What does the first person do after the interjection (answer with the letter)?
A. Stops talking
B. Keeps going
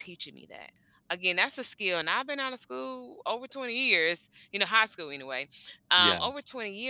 B